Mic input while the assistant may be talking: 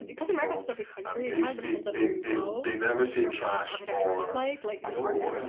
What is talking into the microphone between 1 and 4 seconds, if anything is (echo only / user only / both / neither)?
both